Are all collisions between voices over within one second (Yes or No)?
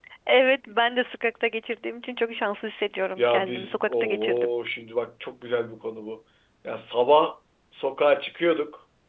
No